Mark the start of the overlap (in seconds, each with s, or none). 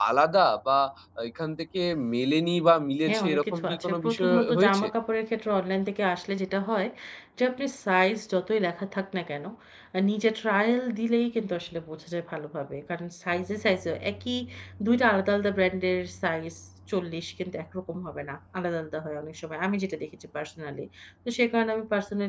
3.1 s